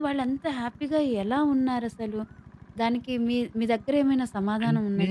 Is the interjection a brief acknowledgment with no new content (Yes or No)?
No